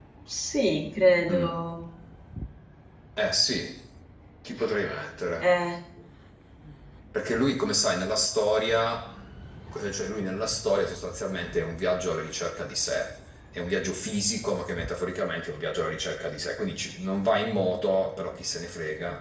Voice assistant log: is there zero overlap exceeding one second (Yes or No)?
Yes